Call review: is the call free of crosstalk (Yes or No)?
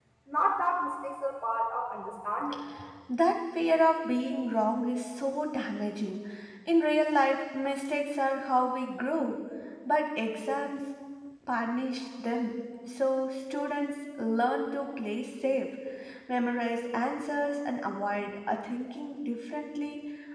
Yes